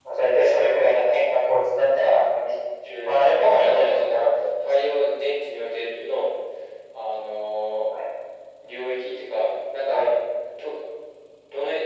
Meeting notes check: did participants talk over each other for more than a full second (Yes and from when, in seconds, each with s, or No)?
Yes, from 2.9 s